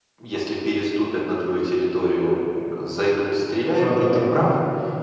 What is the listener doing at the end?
listening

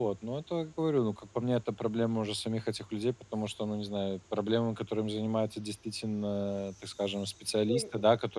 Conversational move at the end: taking over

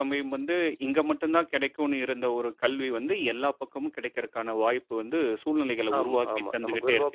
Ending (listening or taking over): taking over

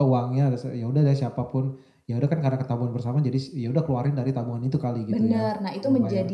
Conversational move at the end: taking over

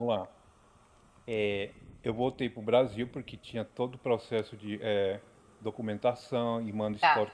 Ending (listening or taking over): listening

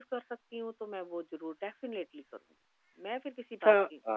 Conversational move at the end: taking over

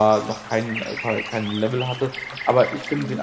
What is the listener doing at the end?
listening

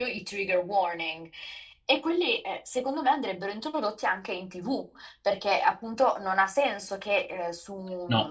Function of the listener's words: listening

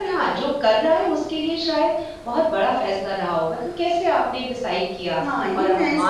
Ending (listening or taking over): taking over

